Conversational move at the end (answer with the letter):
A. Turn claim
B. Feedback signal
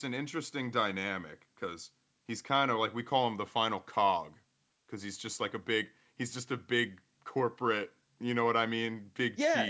A